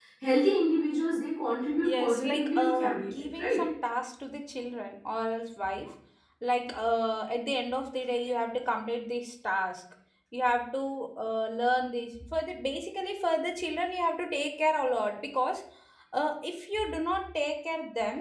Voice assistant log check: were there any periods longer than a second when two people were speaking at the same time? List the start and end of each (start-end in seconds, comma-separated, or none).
1.8-3.6